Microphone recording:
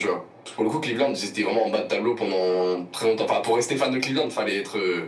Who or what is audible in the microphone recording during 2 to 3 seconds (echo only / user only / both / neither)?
echo only